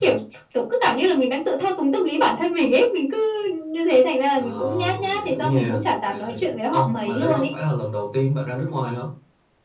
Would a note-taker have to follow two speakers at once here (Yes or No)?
Yes